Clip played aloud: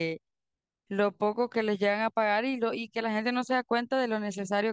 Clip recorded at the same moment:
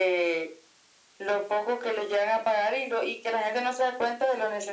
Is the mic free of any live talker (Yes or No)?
Yes